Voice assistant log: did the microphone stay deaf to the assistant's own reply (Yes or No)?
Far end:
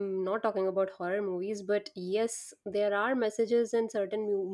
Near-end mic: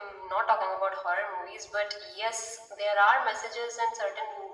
No